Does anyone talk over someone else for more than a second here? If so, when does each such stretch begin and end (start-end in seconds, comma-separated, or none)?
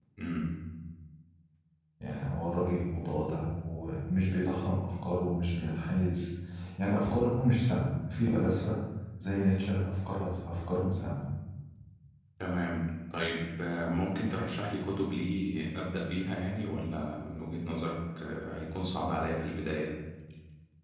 none